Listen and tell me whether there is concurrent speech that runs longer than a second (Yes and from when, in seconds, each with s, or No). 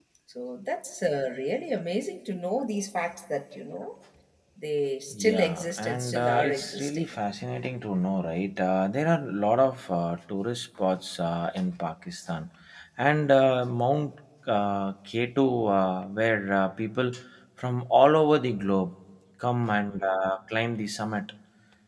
Yes, from 5.1 s